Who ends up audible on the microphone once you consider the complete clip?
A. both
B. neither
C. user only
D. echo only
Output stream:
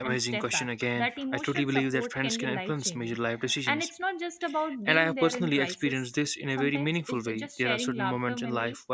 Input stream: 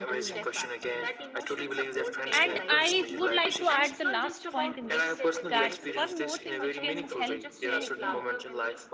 A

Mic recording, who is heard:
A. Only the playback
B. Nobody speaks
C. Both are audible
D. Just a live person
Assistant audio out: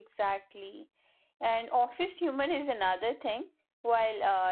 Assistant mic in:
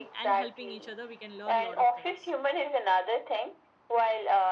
C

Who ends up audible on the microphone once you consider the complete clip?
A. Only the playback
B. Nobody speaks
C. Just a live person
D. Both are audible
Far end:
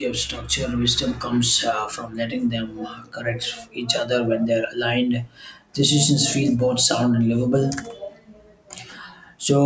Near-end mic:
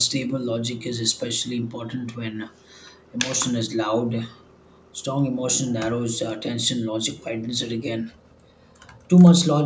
C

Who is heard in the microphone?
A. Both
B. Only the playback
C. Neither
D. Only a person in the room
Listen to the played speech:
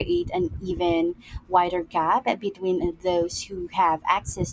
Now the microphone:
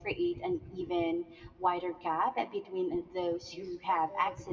A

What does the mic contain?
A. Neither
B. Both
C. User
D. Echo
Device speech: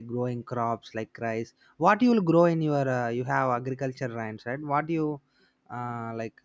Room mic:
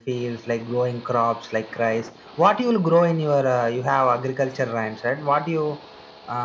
D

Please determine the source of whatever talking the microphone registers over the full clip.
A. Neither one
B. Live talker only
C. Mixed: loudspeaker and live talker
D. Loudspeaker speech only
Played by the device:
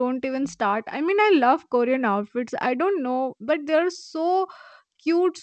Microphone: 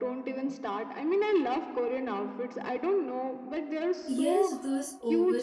C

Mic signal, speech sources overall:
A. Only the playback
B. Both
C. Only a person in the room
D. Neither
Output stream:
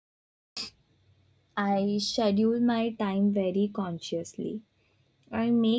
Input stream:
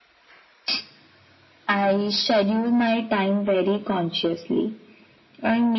A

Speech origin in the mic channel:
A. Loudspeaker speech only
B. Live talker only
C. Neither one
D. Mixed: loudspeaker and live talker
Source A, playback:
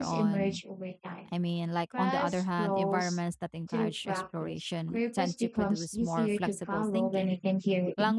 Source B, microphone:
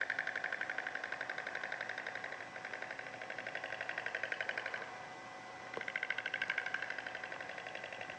C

